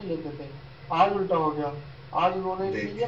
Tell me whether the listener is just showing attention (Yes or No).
Yes